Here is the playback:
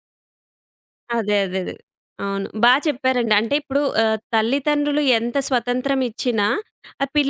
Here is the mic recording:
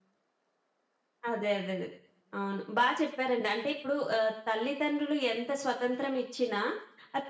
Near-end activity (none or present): none